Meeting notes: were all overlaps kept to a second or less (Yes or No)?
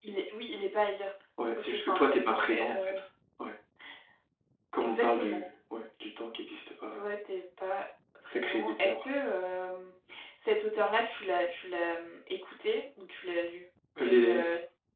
No